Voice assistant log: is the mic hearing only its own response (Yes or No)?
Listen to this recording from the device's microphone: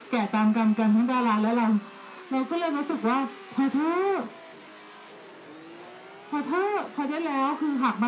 Yes